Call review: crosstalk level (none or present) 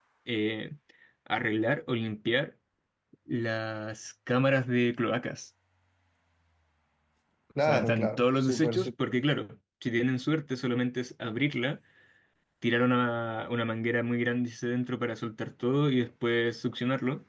present